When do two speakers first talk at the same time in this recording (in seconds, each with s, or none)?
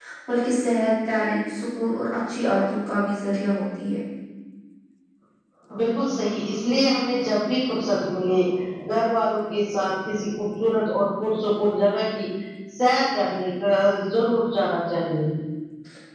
none